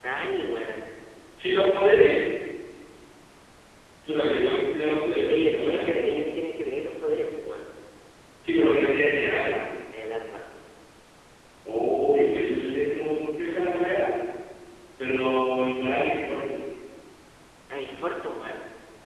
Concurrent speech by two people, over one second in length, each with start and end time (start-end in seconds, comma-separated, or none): 4.9-6.1